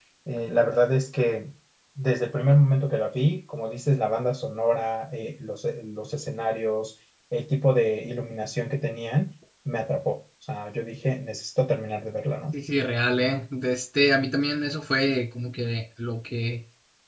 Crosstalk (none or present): none